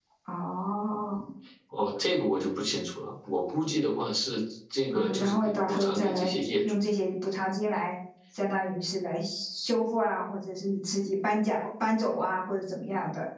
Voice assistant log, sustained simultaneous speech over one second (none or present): present